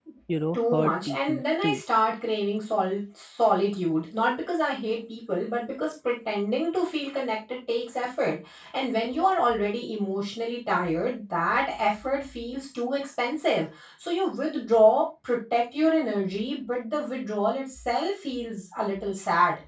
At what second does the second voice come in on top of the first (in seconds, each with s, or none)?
0.5 s